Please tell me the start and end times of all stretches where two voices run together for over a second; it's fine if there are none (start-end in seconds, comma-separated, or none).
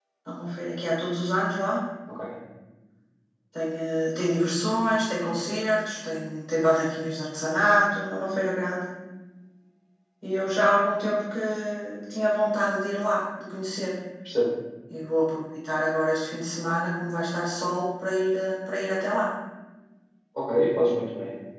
none